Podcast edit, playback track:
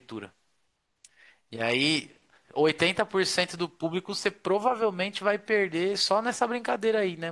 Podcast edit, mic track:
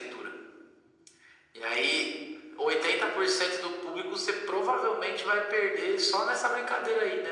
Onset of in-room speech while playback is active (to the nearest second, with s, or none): none